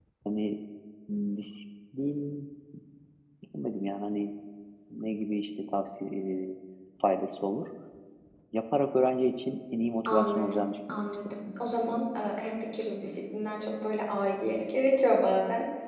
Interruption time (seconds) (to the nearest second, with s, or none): 10 s